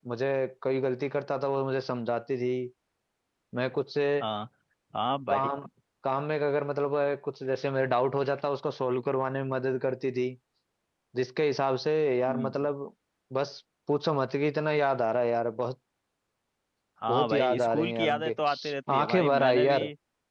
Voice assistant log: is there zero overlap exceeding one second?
No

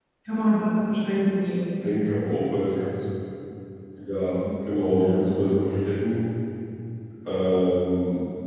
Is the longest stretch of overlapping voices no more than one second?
Yes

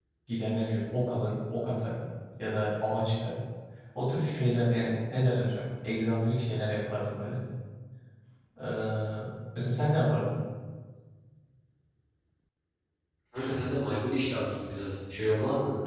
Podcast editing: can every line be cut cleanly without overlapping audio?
Yes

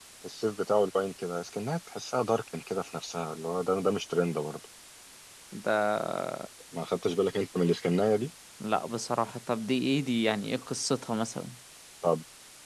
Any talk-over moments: No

